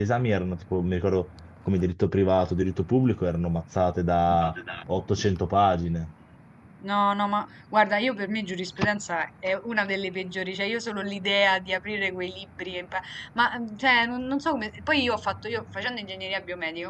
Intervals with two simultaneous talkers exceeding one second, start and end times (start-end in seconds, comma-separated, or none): none